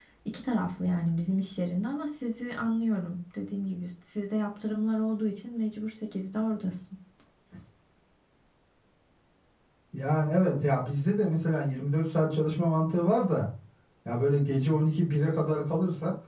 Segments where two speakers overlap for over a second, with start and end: none

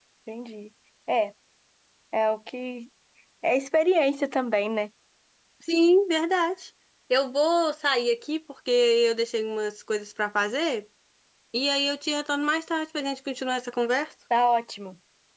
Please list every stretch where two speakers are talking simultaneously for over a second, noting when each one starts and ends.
none

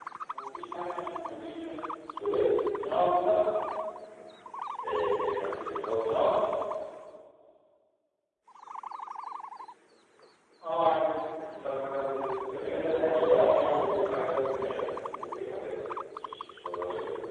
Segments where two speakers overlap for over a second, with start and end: 12.5-14.8

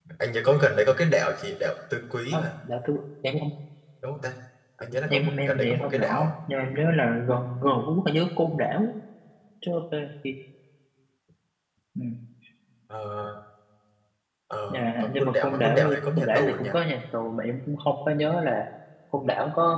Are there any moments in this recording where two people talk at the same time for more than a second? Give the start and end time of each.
5.1-6.3, 14.7-16.7

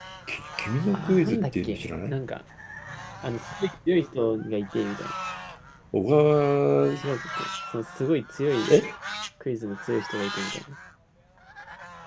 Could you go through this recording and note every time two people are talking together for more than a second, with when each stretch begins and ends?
0.9-2.2

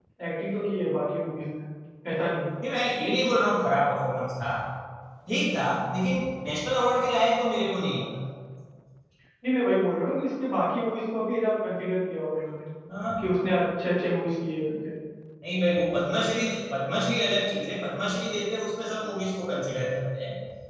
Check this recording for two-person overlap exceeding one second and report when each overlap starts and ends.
none

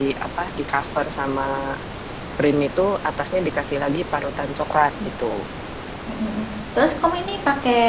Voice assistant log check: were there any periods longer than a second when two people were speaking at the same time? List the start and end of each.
none

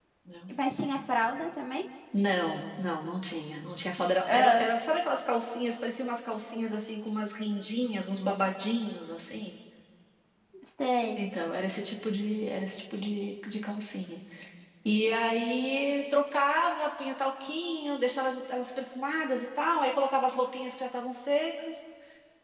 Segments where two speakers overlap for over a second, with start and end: none

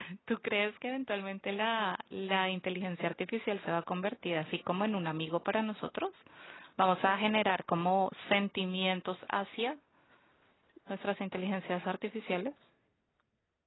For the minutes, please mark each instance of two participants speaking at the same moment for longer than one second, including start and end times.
none

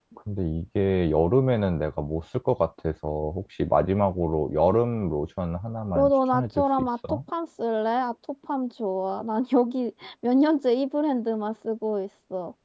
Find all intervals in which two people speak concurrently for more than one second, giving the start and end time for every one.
6.0-7.2

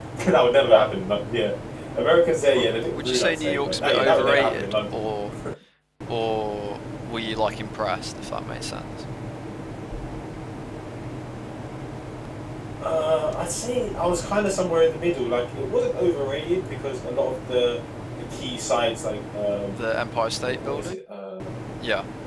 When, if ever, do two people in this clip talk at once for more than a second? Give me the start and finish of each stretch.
2.5-5.0

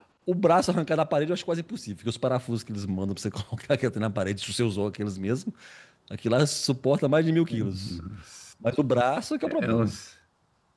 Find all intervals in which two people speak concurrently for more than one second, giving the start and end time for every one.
none

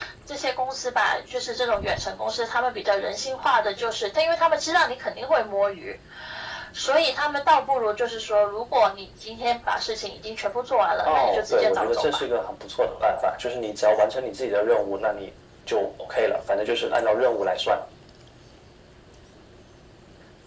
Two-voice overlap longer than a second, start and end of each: 11.0-12.2

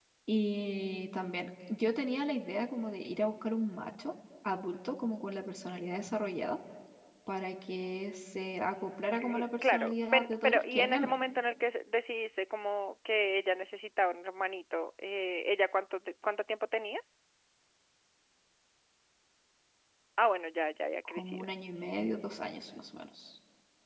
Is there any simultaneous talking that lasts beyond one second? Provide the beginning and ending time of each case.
9.2-11.1

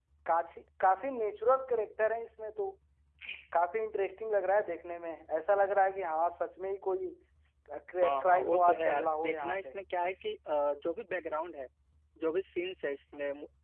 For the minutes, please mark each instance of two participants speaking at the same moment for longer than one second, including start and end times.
8.0-9.6

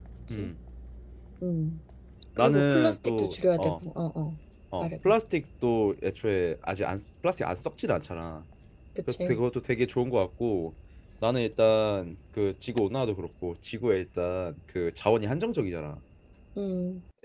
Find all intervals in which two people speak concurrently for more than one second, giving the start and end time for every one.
2.4-3.8

